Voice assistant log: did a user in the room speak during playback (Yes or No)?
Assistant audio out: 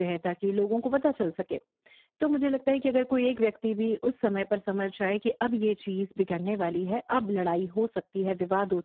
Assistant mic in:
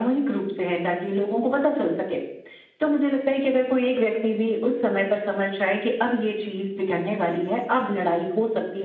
No